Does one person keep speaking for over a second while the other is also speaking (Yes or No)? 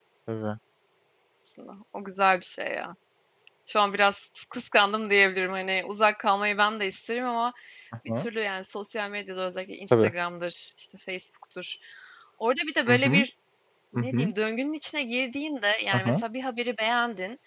No